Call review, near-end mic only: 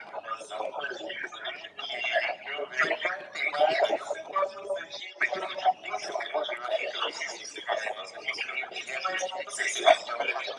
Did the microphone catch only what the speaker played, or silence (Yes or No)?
Yes